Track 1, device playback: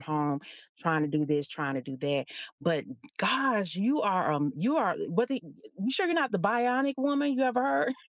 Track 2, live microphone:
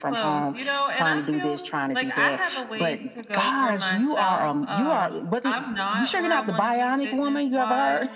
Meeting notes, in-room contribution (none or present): present